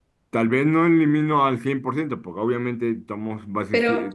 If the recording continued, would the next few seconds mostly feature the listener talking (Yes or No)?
Yes